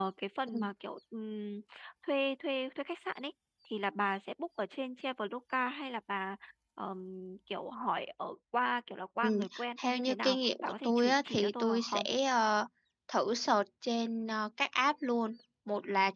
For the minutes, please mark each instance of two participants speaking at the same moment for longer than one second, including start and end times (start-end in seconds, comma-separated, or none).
9.8-12.1